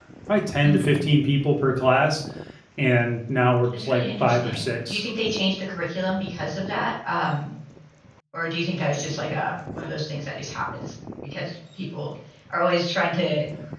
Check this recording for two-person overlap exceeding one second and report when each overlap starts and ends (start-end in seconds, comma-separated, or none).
3.8-5.0